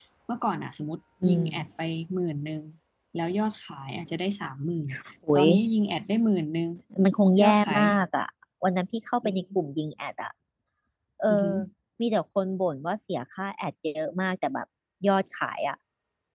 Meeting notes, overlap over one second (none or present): none